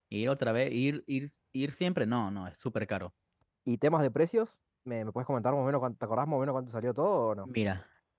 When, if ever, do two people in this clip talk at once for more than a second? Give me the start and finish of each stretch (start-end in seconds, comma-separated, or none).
none